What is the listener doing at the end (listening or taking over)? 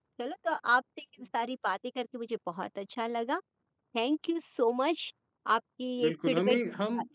taking over